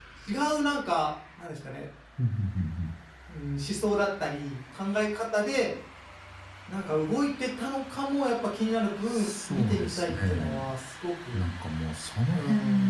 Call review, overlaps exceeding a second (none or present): present